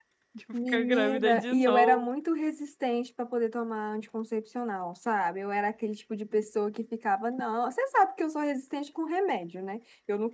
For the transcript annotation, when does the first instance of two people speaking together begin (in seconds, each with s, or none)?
0.7 s